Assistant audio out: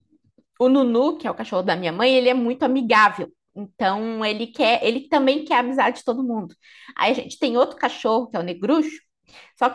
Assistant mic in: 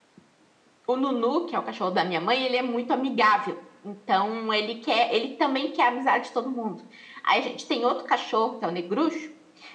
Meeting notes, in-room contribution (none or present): none